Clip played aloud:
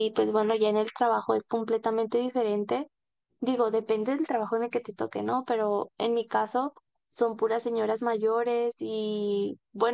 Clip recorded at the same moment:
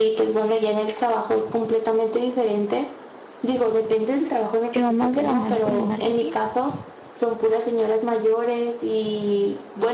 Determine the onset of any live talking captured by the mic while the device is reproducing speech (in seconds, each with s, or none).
4.7 s